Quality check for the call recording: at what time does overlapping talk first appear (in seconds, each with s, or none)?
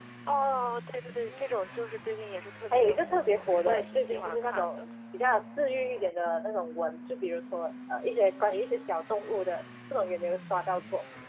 2.7 s